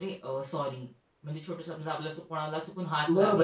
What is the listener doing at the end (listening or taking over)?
taking over